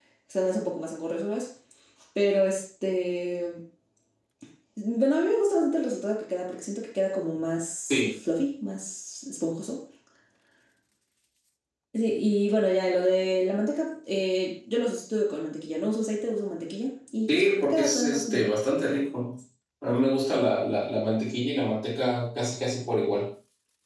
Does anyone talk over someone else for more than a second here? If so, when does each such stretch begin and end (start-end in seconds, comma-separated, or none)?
17.3-18.5